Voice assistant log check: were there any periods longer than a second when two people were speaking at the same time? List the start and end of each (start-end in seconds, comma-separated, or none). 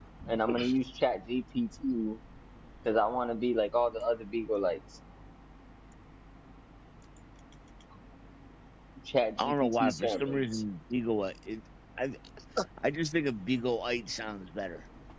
9.4-10.6